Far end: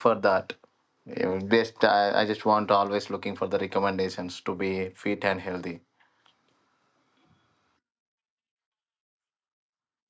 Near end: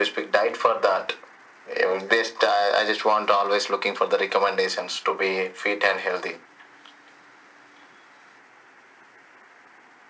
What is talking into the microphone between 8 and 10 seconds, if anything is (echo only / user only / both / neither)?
neither